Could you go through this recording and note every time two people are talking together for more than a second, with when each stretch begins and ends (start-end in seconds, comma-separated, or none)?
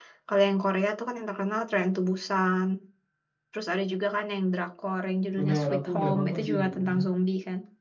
5.4-7.0